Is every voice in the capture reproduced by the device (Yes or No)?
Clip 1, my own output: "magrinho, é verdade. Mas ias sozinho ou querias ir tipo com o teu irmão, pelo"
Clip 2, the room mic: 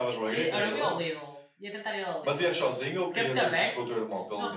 No